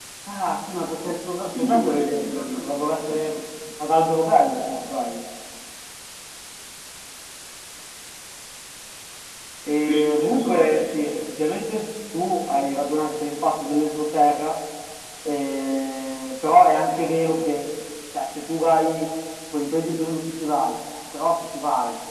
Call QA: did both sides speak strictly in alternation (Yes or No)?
No